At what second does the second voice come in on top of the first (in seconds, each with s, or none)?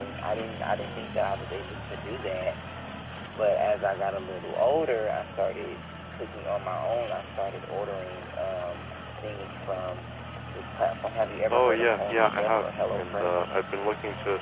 11.5 s